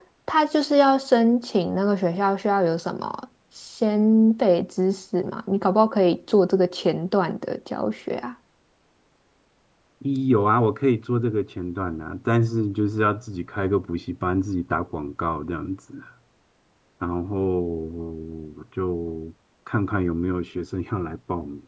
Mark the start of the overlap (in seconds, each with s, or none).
none